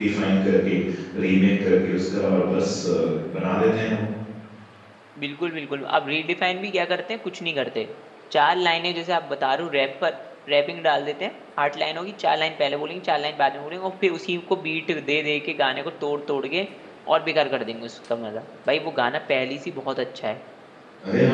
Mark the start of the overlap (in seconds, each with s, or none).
none